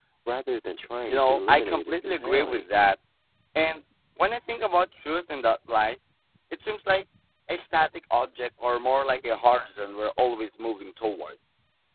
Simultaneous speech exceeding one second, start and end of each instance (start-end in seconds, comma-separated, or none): 1.1-2.6